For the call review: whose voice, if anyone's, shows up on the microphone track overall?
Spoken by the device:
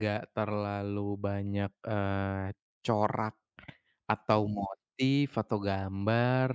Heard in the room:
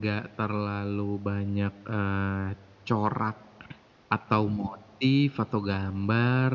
echo only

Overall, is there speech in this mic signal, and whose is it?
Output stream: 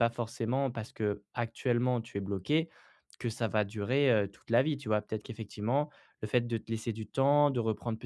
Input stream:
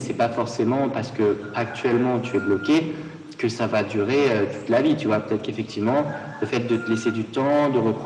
echo only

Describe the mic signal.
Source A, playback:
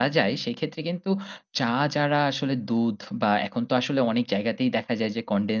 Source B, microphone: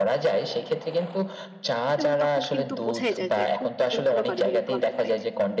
both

